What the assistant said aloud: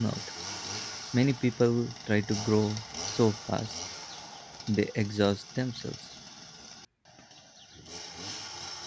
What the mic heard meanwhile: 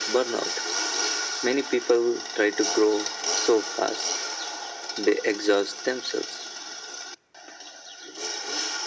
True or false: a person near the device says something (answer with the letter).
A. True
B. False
B